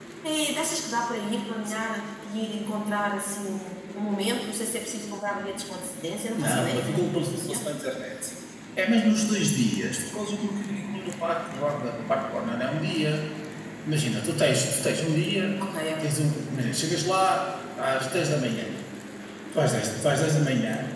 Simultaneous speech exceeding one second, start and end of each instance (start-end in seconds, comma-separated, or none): 6.3-7.6